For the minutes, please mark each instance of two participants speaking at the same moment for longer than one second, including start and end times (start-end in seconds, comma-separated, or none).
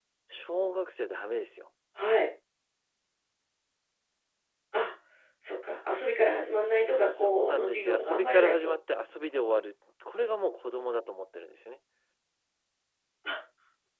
6.9-8.7